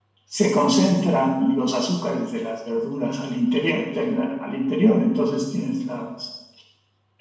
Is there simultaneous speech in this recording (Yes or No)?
No